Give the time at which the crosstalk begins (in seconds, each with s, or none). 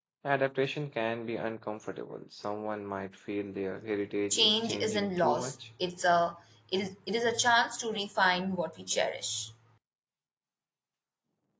4.3 s